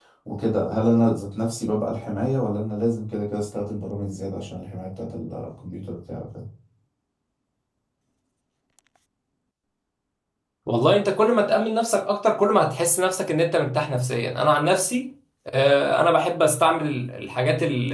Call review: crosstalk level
none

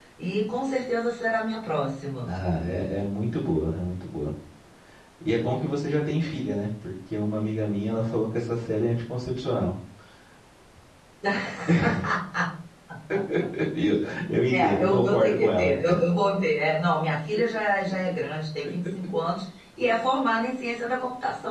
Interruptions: present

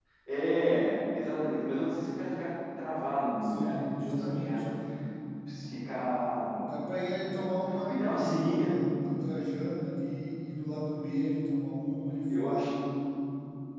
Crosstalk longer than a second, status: present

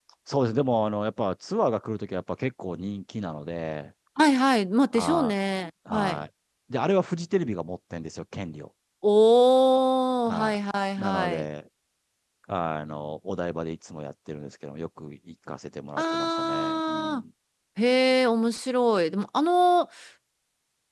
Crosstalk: present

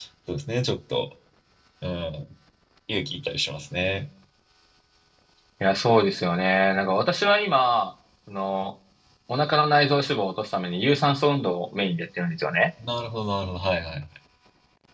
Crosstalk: none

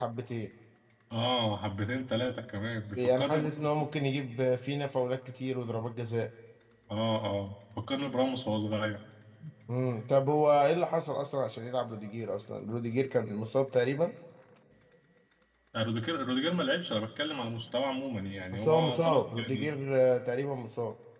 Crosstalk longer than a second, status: present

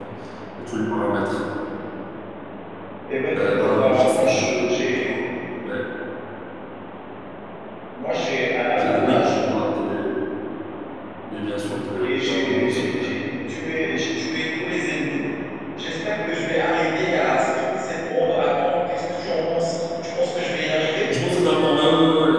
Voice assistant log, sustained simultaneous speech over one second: present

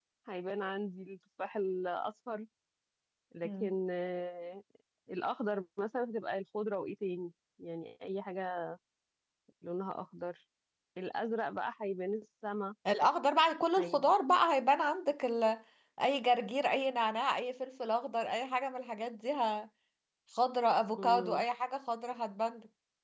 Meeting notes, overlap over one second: none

